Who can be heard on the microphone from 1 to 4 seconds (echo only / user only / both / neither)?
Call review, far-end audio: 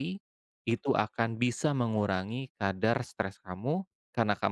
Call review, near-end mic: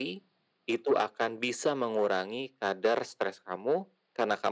echo only